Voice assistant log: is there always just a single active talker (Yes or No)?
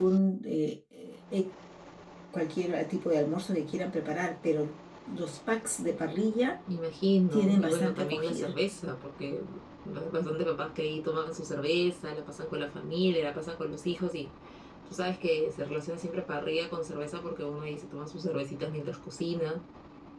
No